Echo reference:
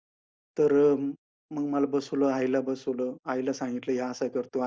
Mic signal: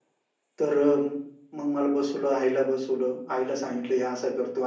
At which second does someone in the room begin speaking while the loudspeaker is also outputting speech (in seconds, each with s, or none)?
none